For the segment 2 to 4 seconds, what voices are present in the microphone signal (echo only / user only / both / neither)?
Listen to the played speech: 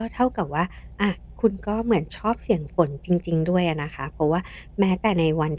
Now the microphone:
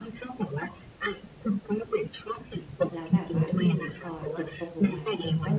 both